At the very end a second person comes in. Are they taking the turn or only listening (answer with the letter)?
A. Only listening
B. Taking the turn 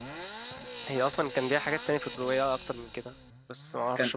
A